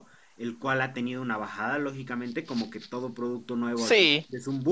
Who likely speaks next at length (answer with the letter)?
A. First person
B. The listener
A